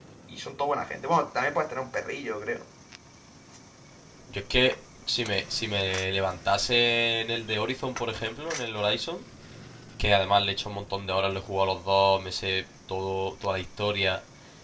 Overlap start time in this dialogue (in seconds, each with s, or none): none